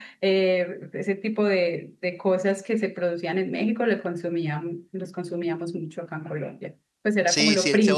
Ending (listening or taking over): taking over